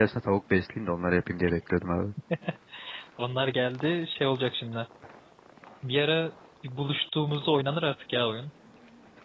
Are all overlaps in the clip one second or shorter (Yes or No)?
Yes